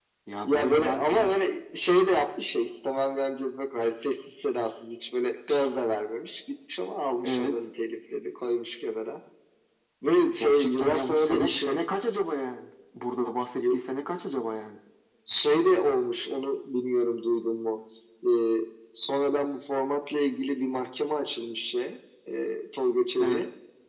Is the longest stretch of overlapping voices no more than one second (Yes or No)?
No